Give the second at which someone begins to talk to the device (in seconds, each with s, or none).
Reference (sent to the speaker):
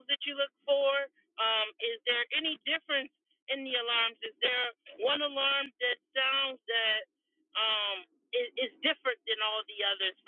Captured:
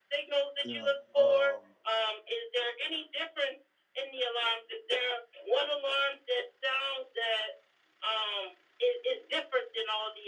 0.6 s